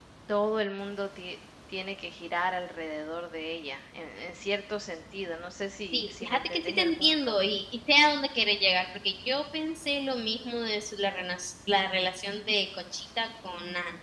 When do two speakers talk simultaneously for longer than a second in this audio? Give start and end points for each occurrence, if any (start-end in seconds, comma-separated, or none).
5.9-7.3